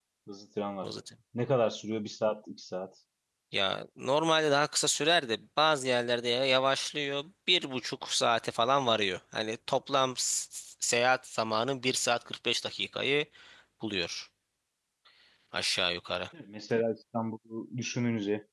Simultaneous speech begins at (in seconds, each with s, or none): none